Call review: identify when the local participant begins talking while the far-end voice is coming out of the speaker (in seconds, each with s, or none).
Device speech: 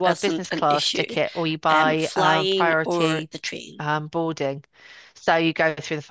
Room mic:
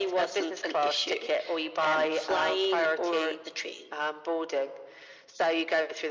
none